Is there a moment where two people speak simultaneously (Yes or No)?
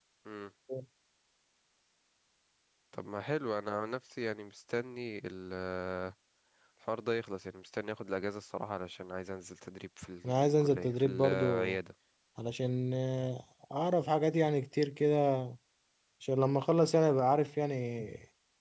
Yes